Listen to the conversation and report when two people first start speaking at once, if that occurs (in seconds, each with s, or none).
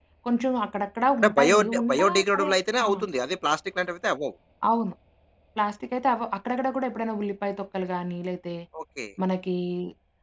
1.2 s